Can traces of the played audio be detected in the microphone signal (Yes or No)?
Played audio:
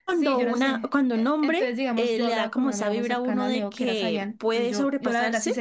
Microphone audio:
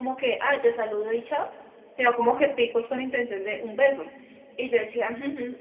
No